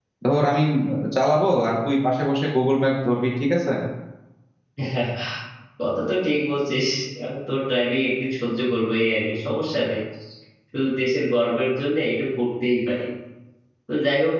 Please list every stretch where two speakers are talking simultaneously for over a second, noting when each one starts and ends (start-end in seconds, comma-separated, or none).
none